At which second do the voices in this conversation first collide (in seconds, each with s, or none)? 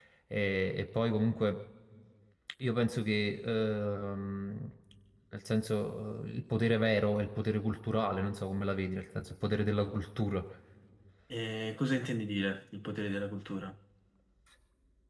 none